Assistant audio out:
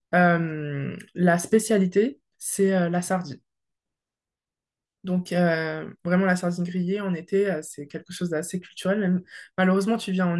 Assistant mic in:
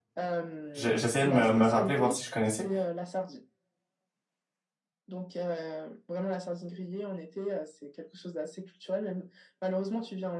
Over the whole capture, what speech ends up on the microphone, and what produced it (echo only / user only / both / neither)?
both